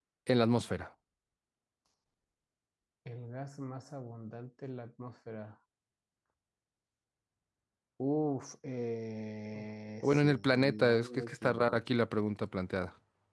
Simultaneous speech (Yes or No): Yes